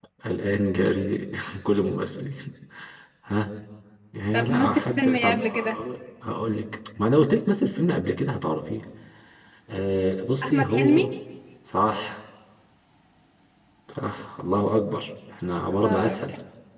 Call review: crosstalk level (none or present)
present